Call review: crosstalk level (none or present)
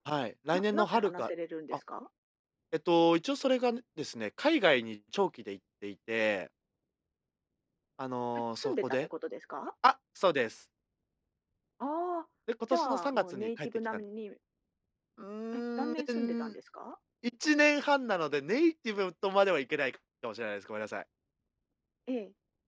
present